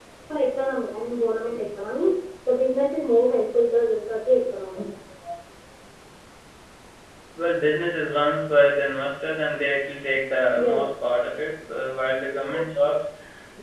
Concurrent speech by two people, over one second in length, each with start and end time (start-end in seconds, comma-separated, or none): none